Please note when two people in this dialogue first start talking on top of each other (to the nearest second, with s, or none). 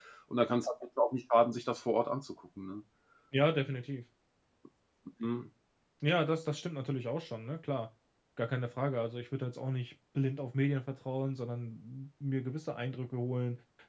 none